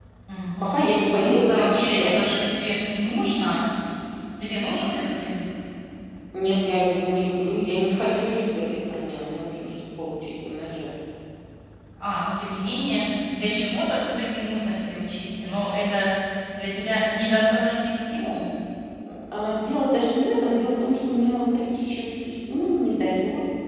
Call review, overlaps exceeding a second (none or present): present